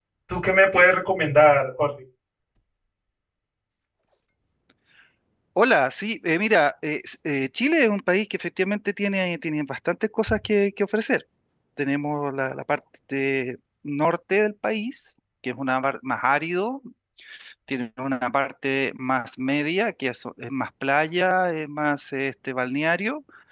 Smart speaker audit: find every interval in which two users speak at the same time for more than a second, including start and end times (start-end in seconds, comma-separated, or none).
none